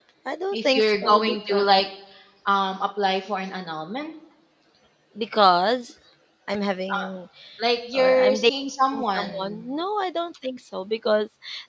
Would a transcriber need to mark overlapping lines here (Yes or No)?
Yes